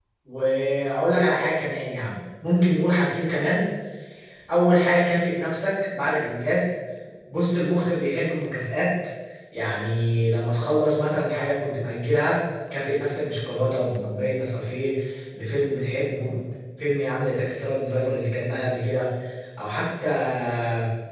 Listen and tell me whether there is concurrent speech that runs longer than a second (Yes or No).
No